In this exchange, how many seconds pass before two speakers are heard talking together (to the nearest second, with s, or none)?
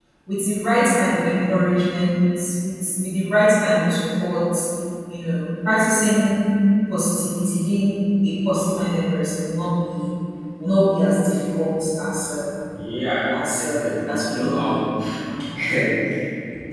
13 s